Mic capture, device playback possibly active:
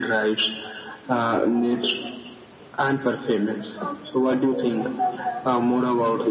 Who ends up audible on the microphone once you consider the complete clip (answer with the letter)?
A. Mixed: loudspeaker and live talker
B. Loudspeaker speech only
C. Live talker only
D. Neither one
B